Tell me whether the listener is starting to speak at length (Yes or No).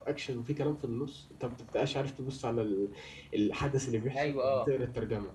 No